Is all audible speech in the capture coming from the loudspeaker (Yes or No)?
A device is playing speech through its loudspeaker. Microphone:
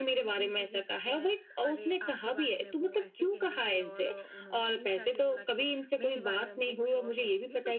No